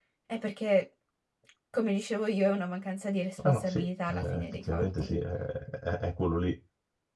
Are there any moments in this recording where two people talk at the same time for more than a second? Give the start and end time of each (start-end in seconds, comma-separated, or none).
3.4-5.2